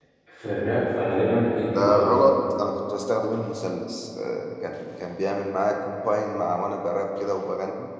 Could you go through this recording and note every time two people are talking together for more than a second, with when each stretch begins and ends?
none

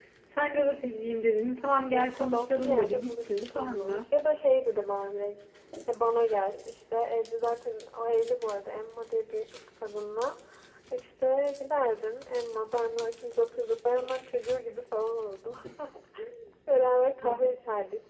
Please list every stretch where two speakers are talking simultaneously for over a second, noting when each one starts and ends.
1.7-4.0

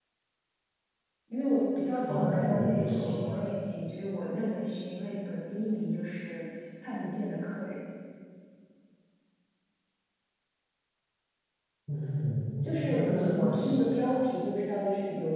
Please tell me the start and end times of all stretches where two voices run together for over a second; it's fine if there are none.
2.1-3.4, 12.6-14.1

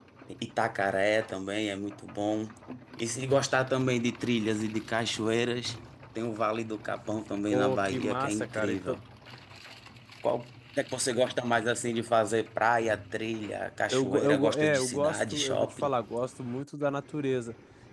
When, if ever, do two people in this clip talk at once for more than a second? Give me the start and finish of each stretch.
7.5-8.7, 13.9-15.9

